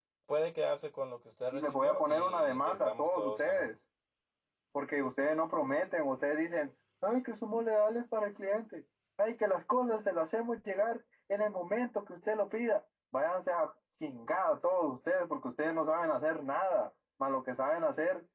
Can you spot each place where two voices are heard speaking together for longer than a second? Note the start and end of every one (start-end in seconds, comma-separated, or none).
1.5-3.7